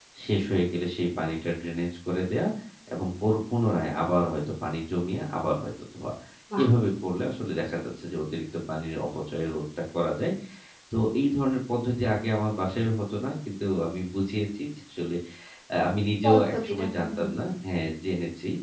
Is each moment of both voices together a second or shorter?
No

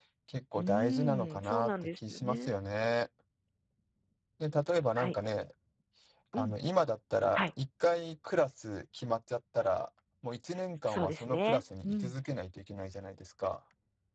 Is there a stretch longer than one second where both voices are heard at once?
Yes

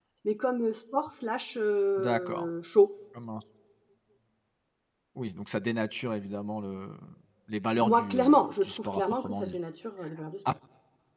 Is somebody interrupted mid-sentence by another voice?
Yes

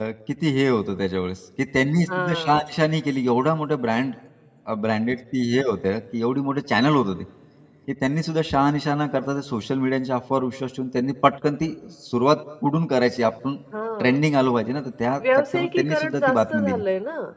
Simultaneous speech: Yes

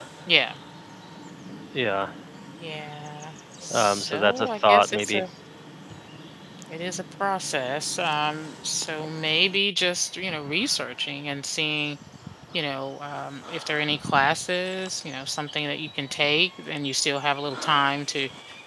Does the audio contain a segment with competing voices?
Yes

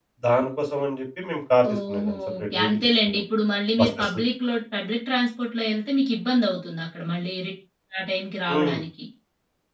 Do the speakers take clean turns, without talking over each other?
No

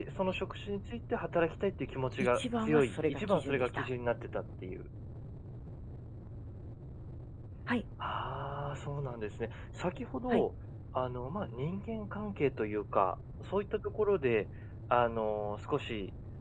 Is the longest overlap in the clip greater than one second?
Yes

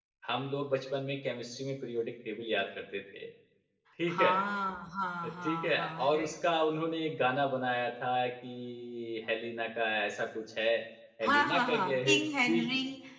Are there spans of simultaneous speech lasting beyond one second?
Yes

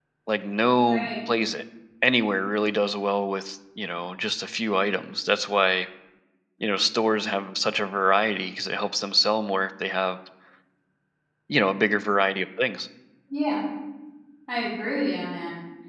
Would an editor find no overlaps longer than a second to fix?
Yes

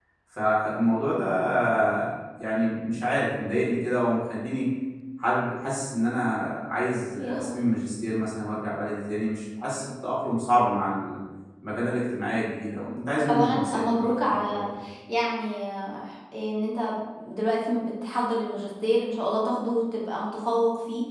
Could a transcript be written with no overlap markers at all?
No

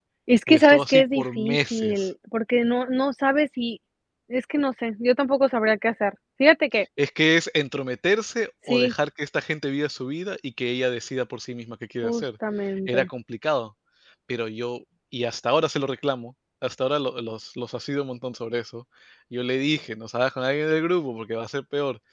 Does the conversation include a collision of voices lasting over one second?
Yes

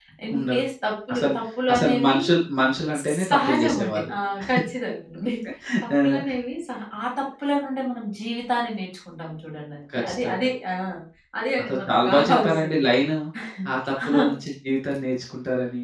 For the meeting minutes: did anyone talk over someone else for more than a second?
Yes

